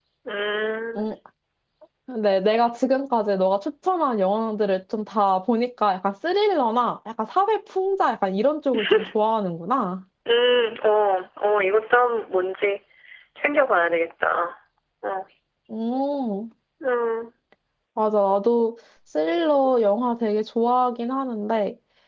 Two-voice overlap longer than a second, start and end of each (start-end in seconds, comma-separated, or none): none